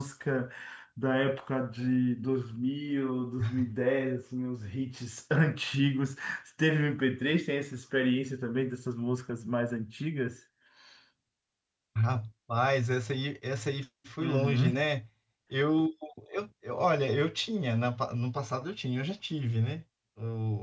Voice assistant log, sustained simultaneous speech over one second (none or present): none